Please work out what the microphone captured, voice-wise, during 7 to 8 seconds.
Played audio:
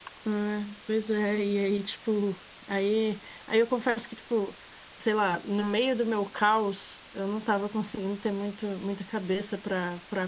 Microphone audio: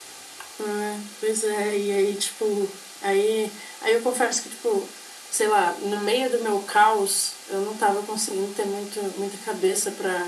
echo only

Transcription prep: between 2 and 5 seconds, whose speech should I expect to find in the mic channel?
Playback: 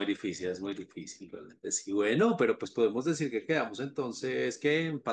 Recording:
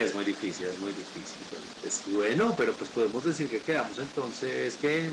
echo only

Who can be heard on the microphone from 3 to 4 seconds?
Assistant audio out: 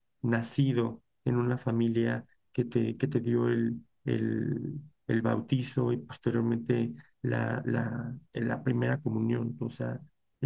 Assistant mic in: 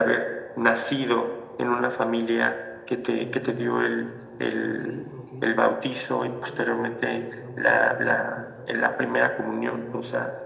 both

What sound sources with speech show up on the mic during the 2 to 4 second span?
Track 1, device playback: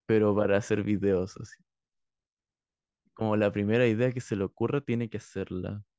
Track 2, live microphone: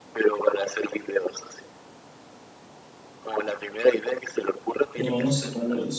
echo only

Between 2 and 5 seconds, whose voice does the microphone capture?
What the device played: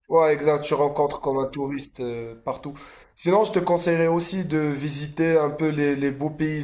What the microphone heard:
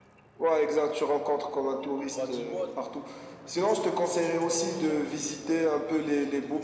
both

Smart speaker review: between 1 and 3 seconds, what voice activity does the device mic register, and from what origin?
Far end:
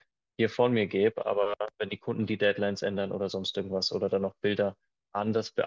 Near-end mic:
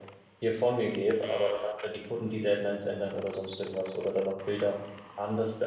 echo only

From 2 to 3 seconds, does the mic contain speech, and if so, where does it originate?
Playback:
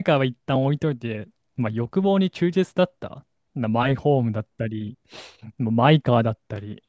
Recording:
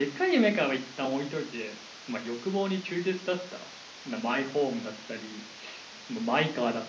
echo only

